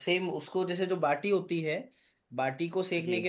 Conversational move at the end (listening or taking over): listening